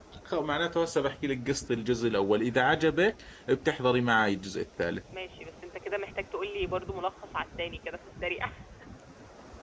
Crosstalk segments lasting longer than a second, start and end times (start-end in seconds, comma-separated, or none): none